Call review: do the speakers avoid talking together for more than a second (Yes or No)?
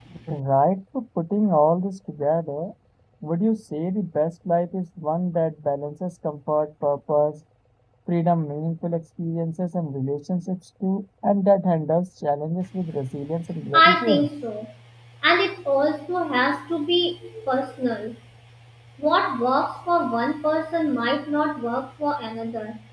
Yes